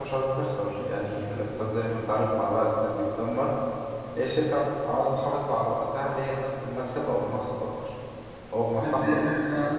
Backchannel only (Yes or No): No